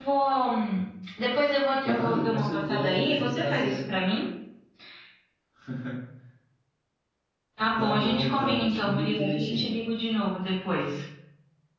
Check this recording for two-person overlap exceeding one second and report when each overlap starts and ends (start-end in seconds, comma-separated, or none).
1.8-3.9, 7.8-9.8